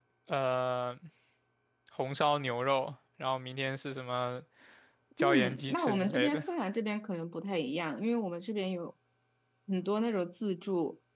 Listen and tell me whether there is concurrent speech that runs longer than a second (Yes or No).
Yes